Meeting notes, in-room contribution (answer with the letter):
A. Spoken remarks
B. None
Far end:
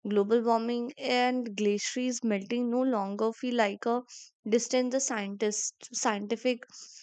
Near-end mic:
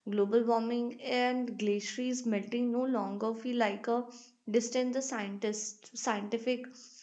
B